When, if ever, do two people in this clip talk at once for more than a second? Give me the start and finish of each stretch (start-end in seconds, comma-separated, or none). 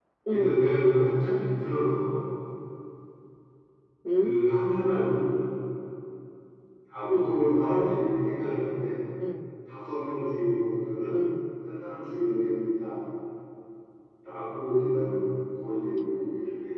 none